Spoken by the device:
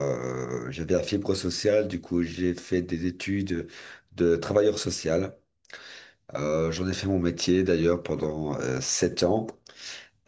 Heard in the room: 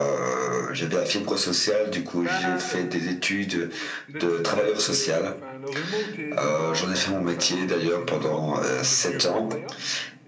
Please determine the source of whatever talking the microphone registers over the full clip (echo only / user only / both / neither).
both